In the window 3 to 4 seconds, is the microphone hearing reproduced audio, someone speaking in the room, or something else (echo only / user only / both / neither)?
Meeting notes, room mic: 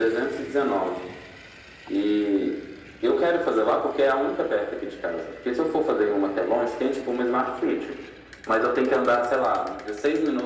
echo only